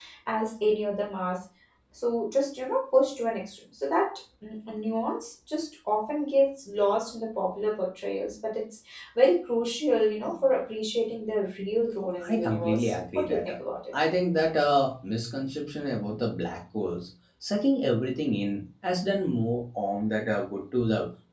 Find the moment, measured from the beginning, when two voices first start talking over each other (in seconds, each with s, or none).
12.2 s